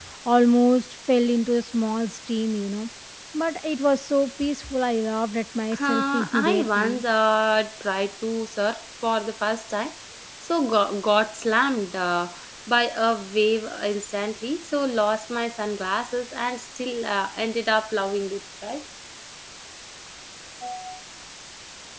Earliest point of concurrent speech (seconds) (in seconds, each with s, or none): 5.7 s